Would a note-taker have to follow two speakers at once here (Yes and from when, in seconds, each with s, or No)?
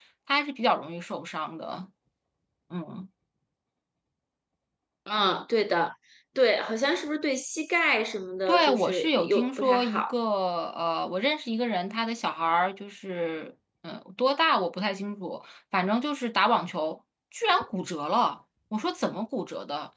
Yes, from 8.5 s